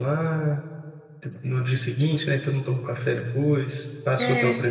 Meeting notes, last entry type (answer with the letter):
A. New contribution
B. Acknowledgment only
B